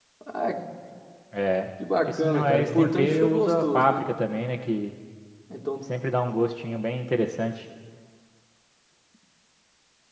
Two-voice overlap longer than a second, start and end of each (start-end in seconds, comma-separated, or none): 2.0-4.0